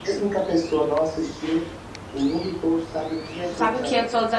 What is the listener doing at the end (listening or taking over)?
taking over